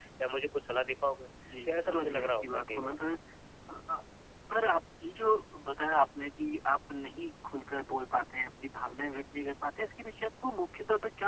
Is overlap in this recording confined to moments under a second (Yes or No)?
No